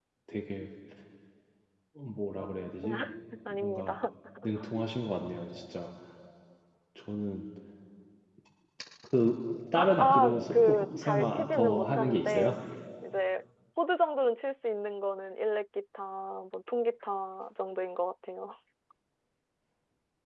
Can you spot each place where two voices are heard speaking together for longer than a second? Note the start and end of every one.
9.8-12.6

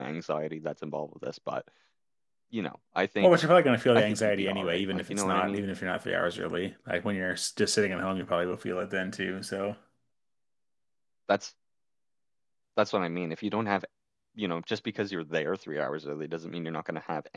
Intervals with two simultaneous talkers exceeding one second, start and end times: 4.0-5.6

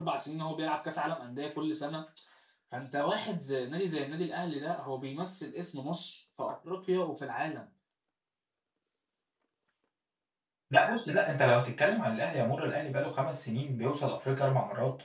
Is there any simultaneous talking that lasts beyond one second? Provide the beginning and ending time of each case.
none

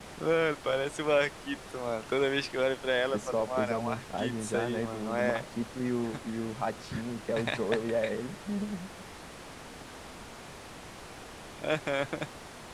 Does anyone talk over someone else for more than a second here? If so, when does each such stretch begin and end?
3.1-5.4

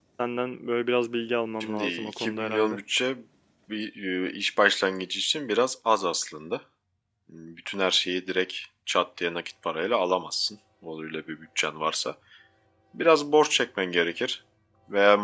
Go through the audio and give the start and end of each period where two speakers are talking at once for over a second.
1.6-2.8

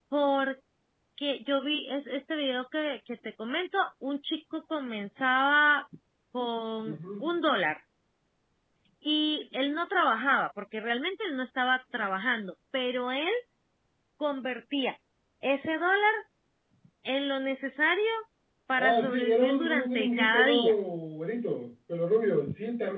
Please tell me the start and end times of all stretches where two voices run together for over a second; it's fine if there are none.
18.8-20.6

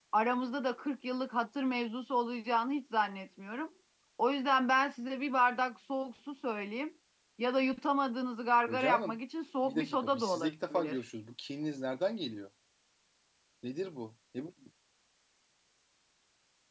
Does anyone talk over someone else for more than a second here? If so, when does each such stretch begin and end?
9.6-11.0

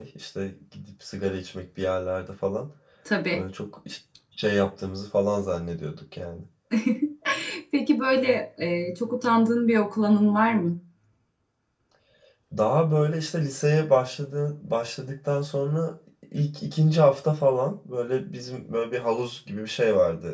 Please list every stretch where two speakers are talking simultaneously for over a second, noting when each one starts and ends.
none

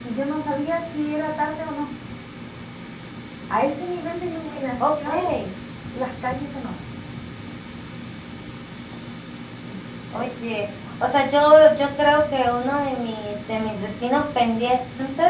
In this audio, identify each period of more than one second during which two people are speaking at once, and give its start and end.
none

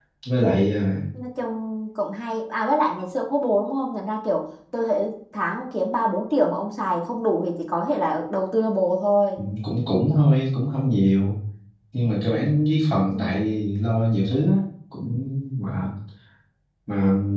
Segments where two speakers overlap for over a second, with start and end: none

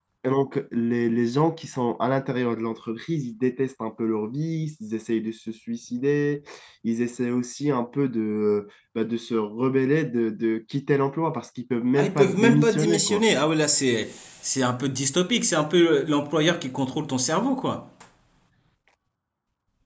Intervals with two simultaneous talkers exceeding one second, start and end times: 12.0-13.2

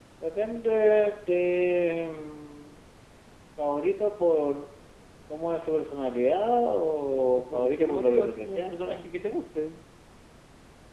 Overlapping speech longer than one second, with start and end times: 7.1-9.0

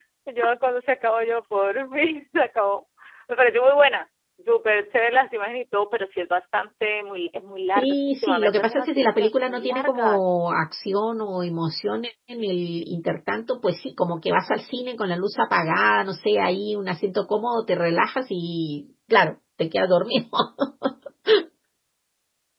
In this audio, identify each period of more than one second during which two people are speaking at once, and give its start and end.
7.8-10.3

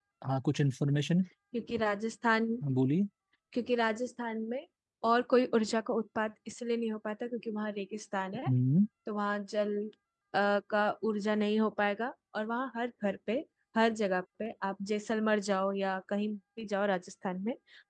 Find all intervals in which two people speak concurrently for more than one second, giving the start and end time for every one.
none

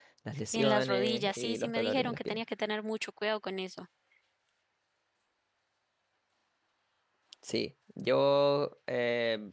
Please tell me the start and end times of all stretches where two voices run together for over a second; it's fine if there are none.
0.5-2.4

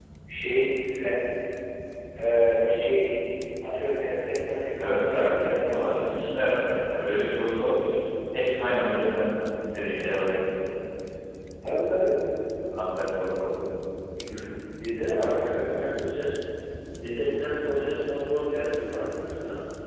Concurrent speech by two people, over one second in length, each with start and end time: 4.8-6.2

